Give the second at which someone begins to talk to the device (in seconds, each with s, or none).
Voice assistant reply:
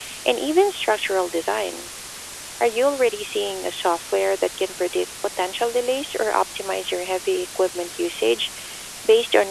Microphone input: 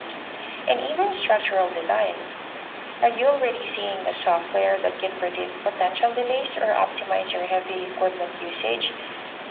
none